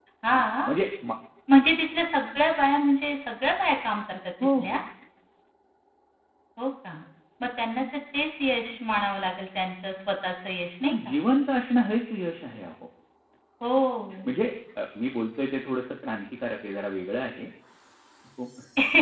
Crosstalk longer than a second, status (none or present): none